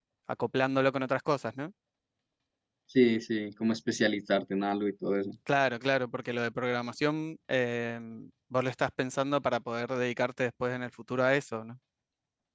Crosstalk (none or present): none